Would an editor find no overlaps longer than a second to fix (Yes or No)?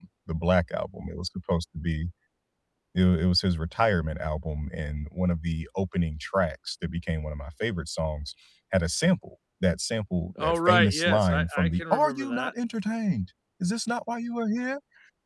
No